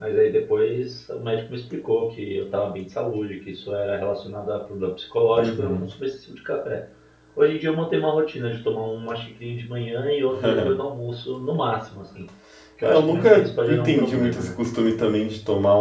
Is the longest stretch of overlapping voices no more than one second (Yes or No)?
No